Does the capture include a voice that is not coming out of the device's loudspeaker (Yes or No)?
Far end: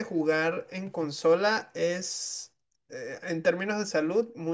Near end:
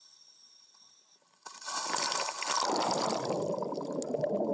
No